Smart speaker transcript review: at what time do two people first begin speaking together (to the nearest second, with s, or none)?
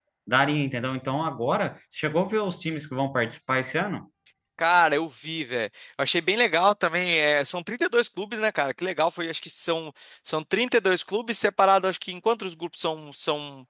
none